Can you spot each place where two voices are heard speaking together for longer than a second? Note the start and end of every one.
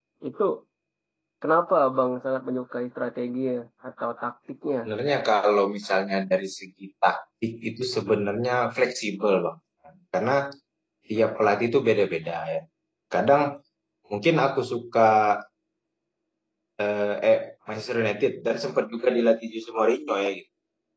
none

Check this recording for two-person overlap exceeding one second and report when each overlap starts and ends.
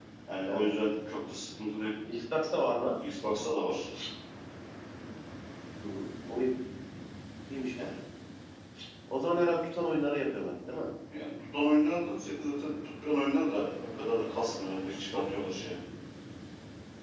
none

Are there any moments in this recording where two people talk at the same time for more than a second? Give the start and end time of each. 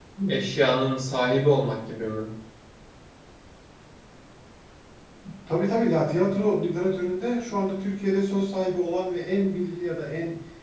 none

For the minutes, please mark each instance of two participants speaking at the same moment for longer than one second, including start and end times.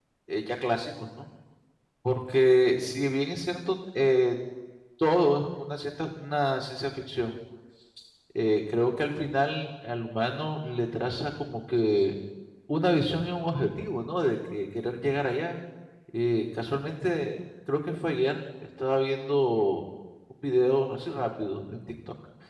none

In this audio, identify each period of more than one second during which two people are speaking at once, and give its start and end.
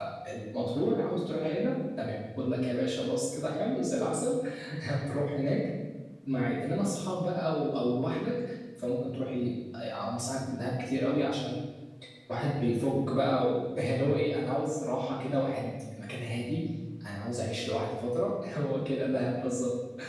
none

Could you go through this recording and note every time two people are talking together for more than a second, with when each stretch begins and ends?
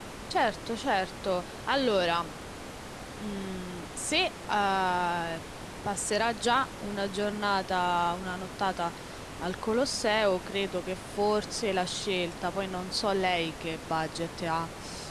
none

